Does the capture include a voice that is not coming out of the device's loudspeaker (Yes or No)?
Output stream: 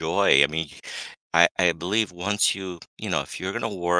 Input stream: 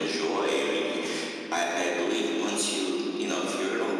No